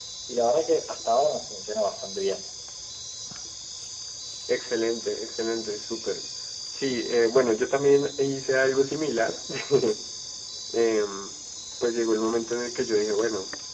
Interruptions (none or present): none